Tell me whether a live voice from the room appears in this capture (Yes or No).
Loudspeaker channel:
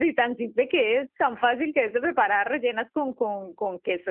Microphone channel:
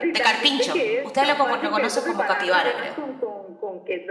Yes